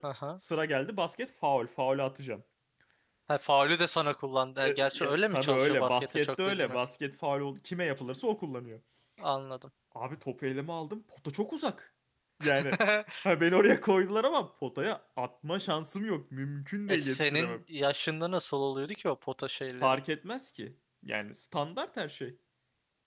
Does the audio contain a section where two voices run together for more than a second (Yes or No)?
Yes